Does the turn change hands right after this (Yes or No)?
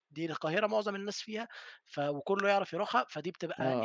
Yes